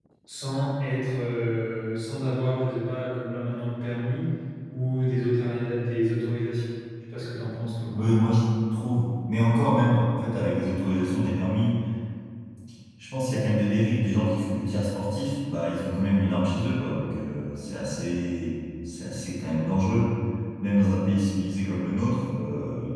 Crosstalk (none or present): none